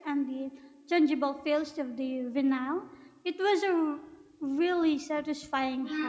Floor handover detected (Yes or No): Yes